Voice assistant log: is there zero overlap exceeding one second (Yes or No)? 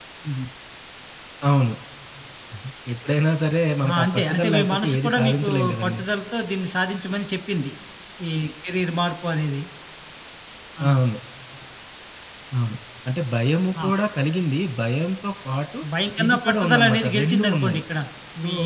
No